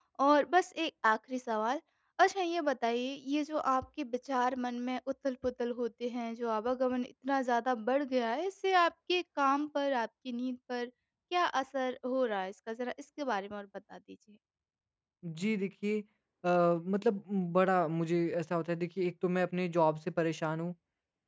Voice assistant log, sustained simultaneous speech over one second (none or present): none